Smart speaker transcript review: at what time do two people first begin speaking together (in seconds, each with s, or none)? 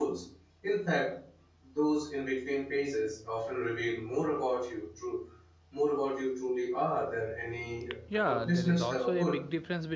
8.1 s